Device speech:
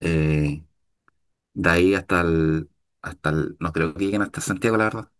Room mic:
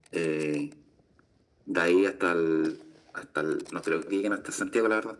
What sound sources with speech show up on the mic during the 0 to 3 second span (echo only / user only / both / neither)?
echo only